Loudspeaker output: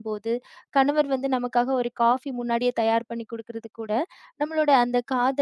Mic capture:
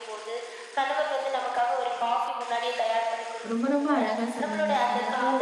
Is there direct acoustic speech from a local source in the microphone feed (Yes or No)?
Yes